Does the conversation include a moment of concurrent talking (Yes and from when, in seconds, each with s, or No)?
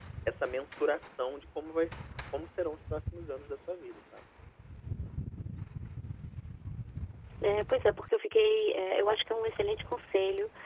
No